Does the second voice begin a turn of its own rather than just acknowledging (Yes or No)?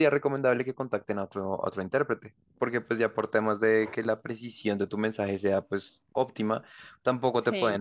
No